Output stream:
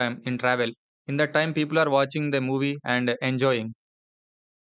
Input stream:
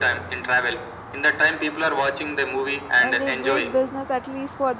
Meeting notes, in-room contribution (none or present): present